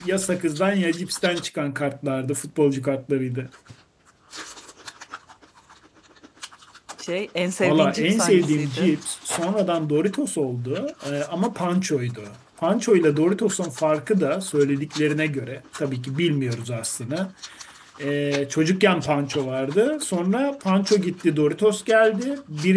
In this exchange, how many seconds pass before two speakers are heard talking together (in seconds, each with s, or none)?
7.6 s